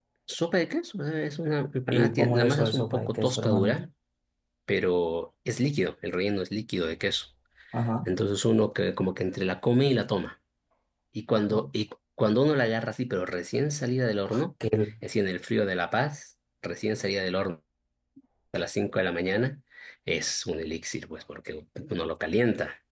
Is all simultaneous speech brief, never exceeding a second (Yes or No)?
No